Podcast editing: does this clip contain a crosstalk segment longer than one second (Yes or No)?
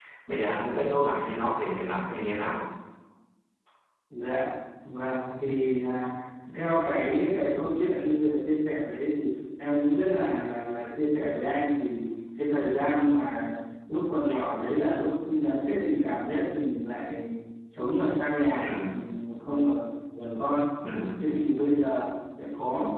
No